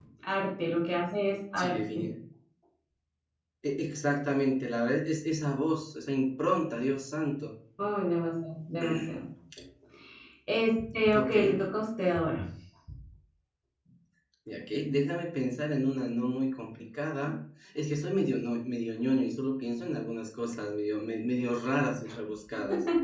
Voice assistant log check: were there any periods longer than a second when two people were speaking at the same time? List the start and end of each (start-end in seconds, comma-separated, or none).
none